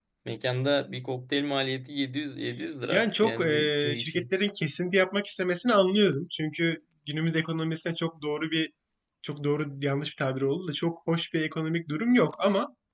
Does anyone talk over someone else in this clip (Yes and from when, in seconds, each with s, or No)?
Yes, from 2.9 s